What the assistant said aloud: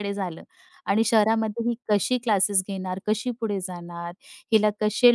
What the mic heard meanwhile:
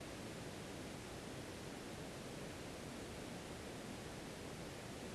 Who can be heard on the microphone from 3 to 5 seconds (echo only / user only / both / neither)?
neither